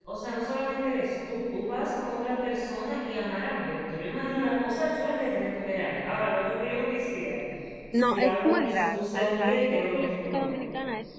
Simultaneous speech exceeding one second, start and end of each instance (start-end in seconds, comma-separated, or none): 8.1-10.6